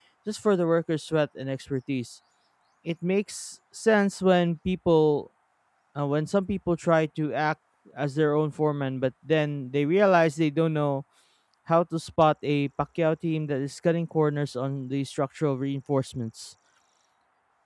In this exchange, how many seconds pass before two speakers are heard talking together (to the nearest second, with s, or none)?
none